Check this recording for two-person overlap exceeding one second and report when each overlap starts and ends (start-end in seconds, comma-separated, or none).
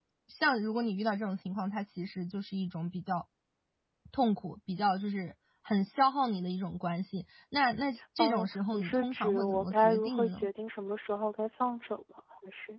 8.2-10.4